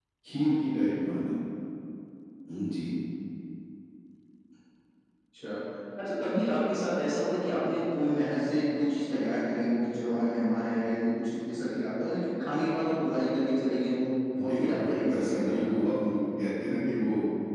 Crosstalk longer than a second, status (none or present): present